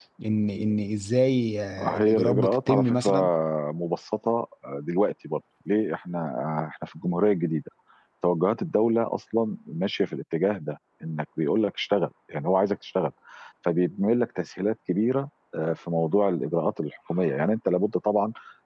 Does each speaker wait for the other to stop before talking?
No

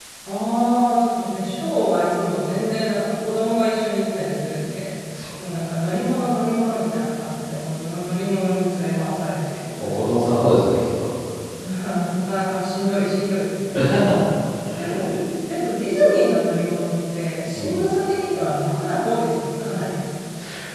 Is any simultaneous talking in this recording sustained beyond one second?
No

